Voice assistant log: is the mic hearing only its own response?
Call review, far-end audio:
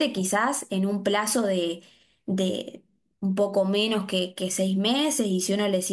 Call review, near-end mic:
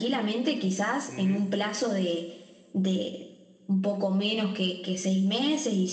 No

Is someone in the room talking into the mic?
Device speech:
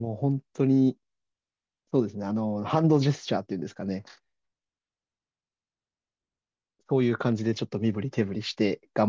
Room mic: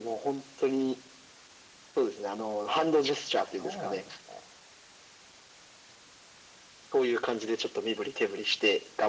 Yes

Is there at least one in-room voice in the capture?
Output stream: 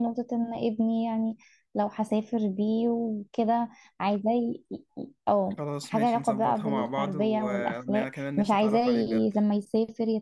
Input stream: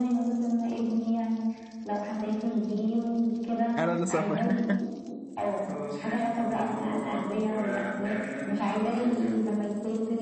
Yes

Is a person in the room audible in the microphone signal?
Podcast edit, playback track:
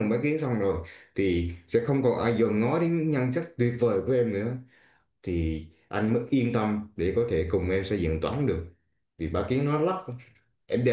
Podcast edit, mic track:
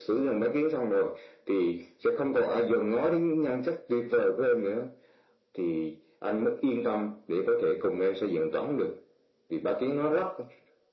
No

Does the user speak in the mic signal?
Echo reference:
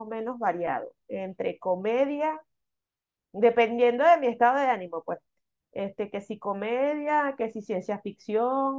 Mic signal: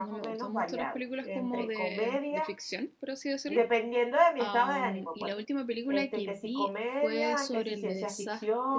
Yes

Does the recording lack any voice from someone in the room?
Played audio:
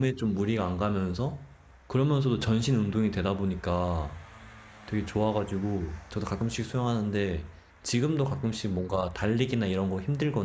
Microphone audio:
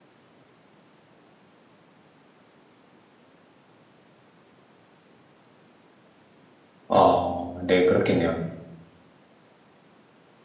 No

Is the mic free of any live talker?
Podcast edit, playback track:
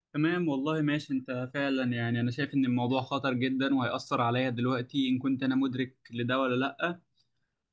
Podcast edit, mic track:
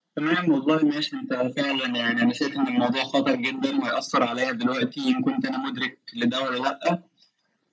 Yes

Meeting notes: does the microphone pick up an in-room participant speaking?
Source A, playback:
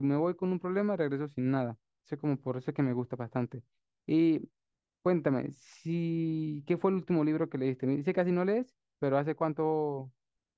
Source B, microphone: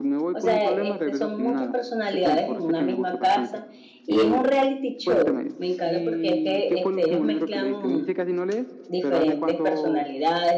Yes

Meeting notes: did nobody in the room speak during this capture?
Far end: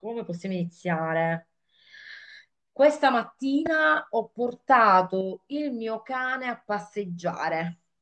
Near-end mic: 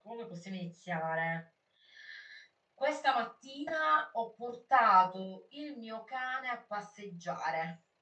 Yes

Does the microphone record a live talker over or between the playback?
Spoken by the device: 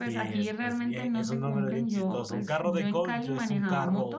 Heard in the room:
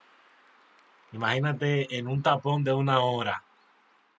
Yes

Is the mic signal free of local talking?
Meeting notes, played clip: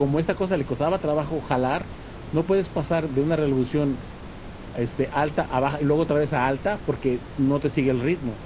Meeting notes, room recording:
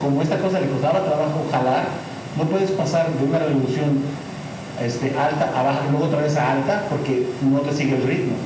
Yes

